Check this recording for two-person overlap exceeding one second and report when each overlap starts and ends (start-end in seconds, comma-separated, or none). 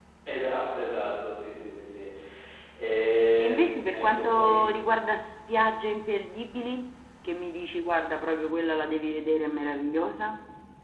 3.4-4.6